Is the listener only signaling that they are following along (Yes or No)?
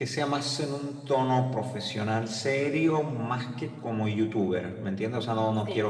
Yes